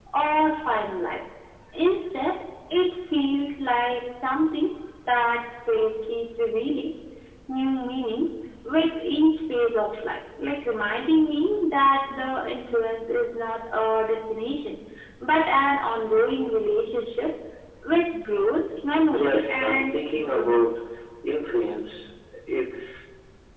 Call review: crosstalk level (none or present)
present